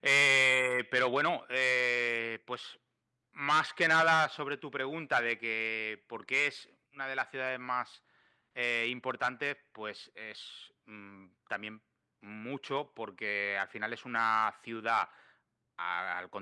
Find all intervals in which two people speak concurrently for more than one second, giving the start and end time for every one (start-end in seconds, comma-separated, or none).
none